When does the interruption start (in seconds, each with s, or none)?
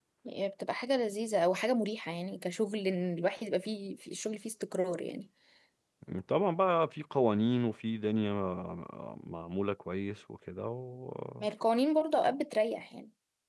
none